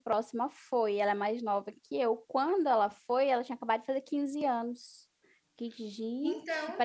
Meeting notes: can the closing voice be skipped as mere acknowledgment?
Yes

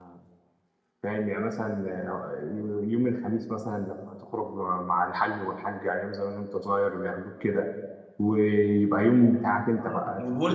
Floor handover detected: Yes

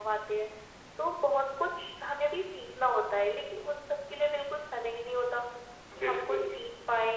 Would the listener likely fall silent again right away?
Yes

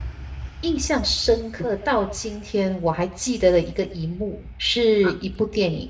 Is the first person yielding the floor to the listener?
No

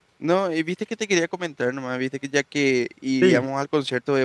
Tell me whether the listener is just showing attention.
Yes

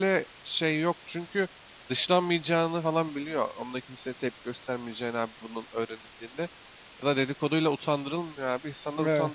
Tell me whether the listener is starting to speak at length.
No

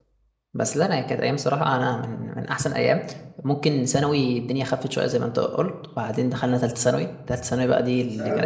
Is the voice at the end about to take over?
Yes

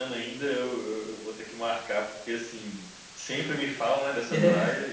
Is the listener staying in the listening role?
Yes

